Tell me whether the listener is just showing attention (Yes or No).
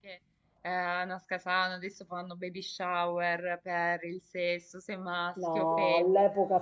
No